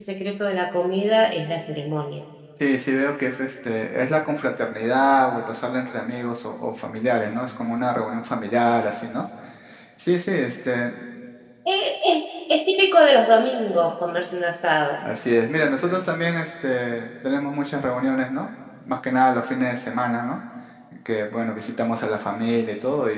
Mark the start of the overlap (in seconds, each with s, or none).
none